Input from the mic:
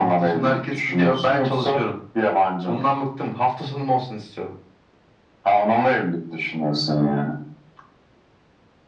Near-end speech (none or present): none